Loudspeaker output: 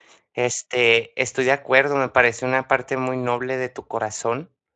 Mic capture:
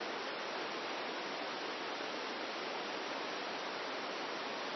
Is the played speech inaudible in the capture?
Yes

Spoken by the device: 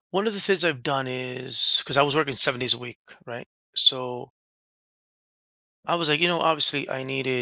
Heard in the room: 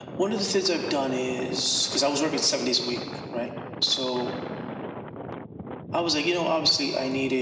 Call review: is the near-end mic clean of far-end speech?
No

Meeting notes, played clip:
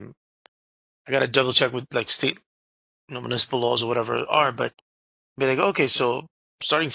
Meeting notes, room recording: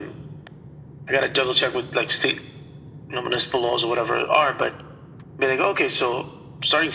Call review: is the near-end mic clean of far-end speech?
No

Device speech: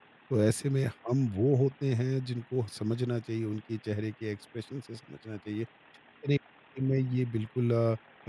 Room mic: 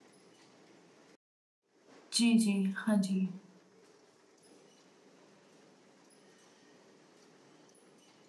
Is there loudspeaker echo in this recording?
No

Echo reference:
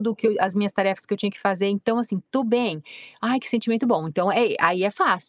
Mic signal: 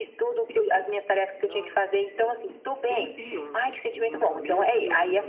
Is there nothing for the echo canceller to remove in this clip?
No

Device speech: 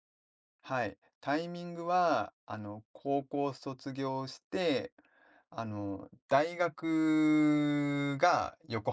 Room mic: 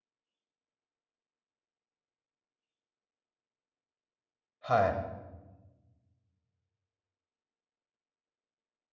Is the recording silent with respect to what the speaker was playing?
Yes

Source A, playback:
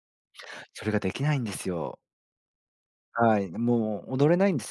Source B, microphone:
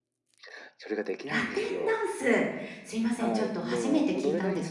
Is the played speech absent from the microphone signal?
No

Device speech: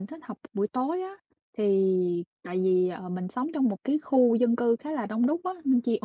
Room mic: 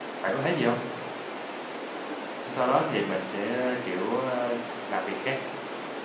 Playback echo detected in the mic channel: No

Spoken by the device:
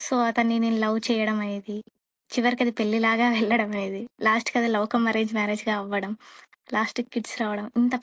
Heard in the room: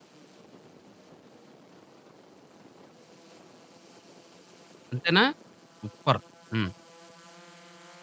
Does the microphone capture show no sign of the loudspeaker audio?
Yes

